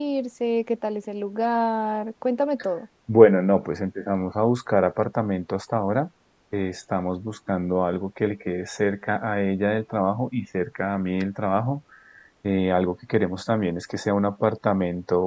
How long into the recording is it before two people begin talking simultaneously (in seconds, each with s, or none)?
none